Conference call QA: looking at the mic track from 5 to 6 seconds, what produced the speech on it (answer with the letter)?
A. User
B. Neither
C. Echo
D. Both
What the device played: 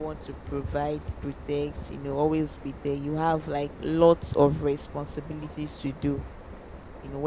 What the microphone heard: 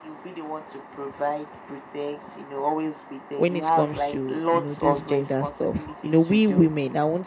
D